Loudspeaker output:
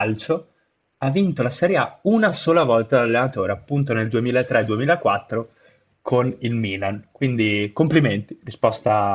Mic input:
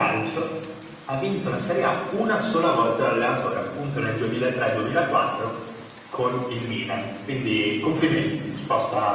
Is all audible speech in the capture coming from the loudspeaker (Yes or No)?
Yes